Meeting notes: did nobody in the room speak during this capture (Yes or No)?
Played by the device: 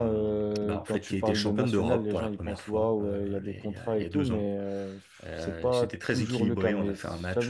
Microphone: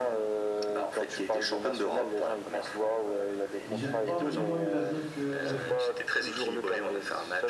No